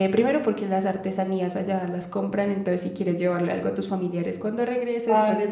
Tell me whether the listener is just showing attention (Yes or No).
No